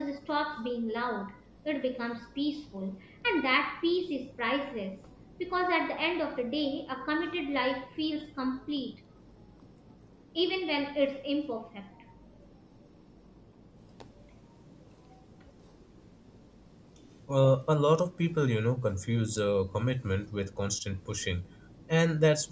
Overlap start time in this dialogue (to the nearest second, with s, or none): none